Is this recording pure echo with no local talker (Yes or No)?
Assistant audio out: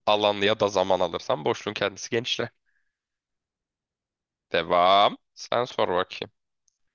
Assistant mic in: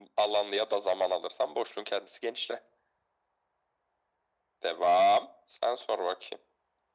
Yes